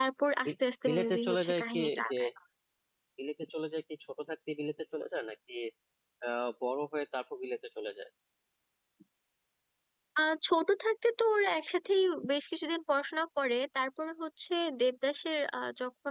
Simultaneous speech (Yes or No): Yes